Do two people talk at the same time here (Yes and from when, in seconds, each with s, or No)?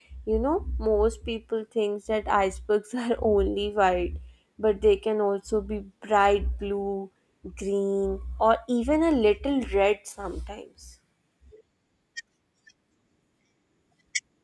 No